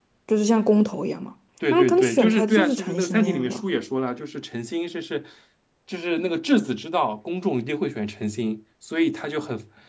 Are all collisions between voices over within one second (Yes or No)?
No